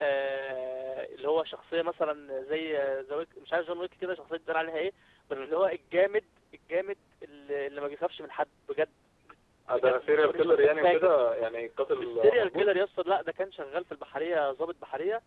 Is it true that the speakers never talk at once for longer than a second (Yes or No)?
No